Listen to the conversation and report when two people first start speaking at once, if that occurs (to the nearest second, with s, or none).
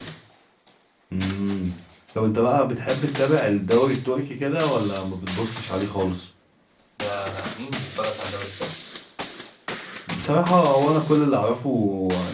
none